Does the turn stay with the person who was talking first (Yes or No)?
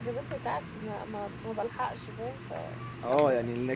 No